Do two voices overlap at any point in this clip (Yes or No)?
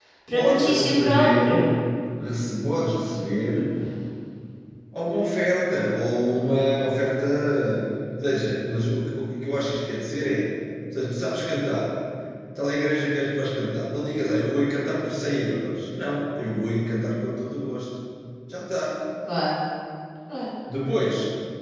Yes